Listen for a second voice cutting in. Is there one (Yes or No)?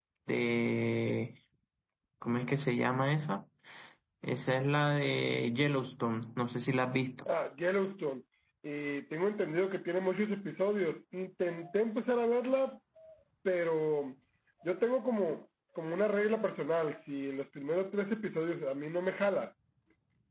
No